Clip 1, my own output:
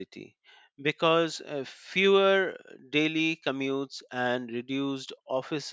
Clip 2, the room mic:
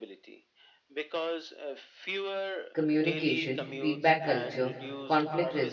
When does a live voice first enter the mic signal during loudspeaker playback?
2.7 s

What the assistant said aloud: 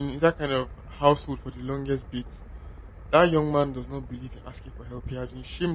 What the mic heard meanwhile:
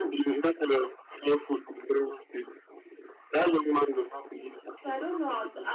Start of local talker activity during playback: 4.8 s

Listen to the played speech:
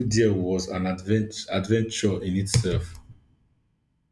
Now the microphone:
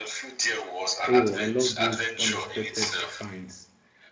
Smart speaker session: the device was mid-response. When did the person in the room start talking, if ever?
1.1 s

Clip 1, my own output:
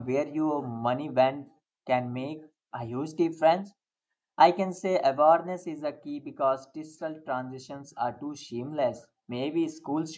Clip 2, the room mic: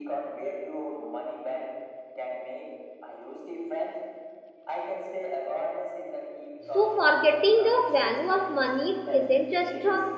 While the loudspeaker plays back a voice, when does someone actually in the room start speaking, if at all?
6.7 s

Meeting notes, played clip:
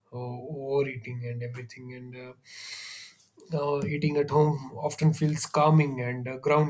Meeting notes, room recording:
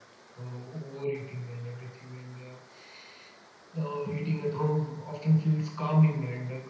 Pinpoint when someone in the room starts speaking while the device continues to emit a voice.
none

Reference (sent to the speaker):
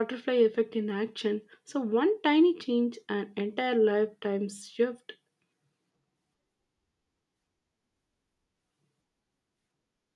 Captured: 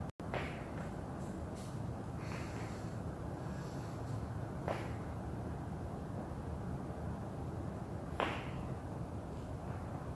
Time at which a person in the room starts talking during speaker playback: none

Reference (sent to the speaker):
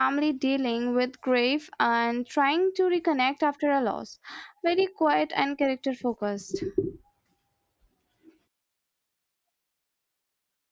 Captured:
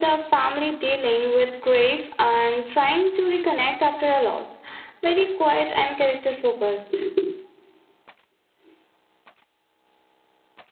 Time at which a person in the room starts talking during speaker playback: none

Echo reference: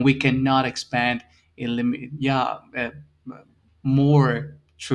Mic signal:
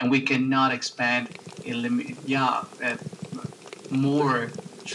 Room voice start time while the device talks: none

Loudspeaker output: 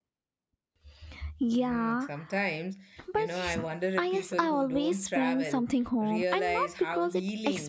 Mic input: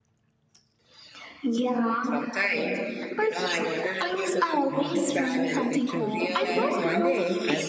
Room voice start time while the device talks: 4.7 s

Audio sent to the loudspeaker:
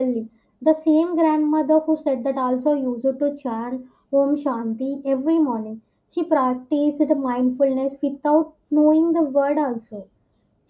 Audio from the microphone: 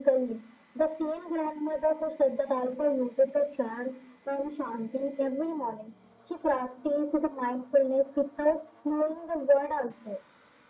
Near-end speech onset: none

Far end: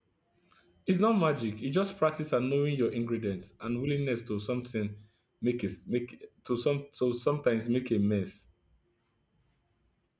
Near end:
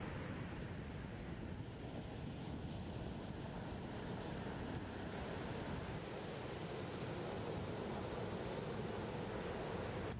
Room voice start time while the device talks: none

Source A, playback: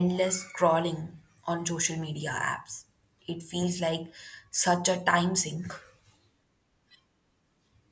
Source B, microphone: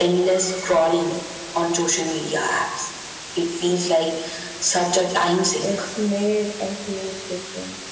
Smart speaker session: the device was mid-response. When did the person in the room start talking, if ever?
5.6 s

